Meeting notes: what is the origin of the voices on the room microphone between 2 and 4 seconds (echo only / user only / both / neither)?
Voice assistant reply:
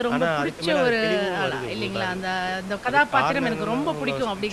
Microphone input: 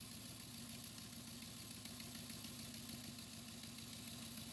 neither